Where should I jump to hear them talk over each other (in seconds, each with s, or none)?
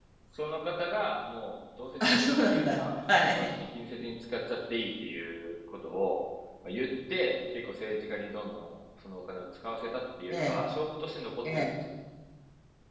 2.0 s